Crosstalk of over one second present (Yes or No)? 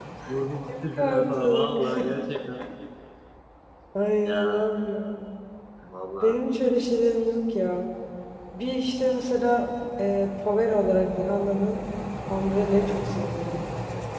Yes